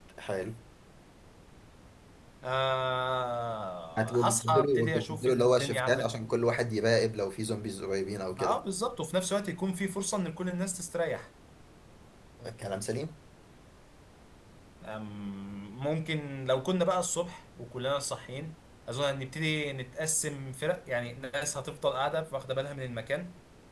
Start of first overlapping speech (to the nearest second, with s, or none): 4 s